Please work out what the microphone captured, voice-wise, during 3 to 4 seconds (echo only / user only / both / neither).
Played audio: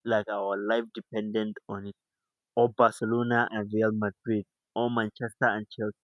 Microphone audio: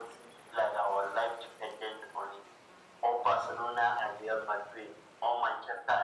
echo only